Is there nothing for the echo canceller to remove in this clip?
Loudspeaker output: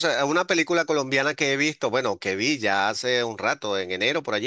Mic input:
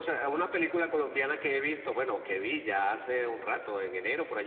No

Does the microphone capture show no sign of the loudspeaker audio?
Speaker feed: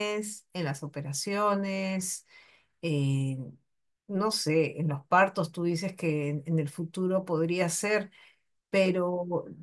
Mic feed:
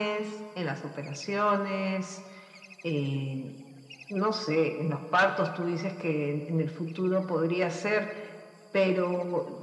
No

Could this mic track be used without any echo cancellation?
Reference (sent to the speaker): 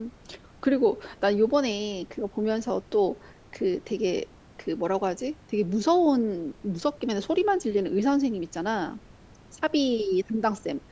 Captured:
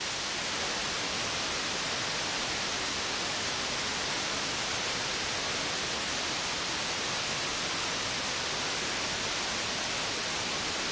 Yes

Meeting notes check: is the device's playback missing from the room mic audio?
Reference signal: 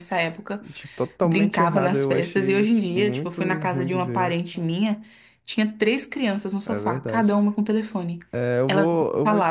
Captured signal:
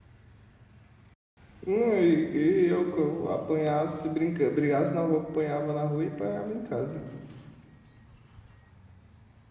Yes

